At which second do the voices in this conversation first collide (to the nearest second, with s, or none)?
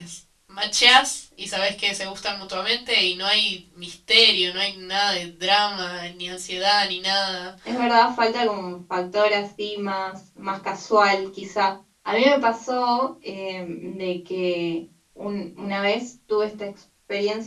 none